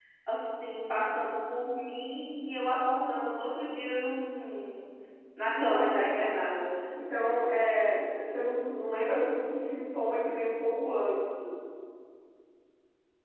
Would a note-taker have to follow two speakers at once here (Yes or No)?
Yes